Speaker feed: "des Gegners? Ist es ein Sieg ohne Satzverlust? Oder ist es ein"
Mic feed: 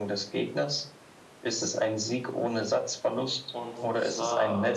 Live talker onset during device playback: 3.5 s

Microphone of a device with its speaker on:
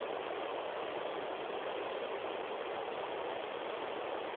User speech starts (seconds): none

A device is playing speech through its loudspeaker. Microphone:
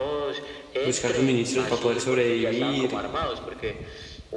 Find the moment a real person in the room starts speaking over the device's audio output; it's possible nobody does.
0.8 s

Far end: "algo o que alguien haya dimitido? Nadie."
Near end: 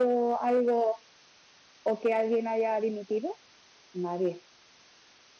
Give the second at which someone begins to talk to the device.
none

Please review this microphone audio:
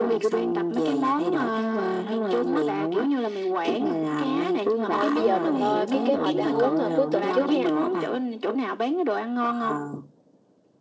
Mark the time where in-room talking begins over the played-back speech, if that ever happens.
4.8 s

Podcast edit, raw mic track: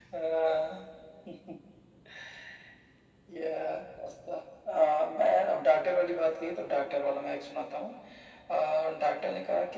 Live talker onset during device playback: none

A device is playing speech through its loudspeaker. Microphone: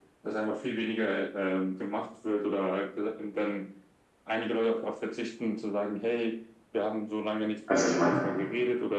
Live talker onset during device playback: 7.7 s

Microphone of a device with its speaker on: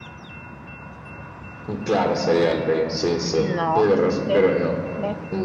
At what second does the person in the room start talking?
3.4 s

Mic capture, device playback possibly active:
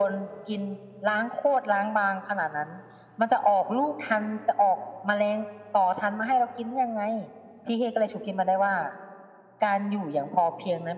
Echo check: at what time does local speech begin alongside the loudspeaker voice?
none

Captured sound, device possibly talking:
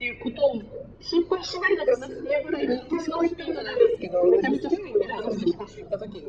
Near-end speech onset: none

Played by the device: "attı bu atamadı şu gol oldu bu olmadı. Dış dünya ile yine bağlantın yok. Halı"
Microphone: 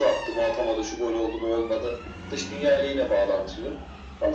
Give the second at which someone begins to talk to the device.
none

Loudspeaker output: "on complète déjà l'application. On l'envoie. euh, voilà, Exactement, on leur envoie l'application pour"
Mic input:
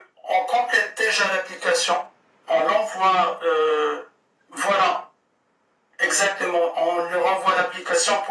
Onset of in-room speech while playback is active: none

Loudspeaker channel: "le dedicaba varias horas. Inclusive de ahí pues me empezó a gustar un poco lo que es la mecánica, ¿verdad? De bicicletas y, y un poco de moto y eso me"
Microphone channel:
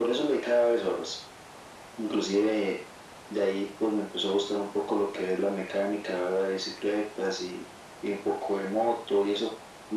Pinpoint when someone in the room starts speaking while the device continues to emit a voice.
none

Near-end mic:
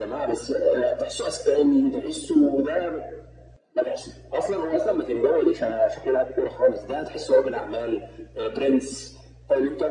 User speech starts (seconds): none

